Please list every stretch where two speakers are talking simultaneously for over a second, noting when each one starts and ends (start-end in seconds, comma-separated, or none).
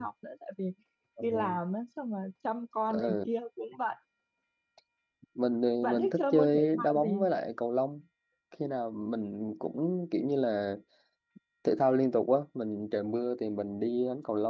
5.8-7.3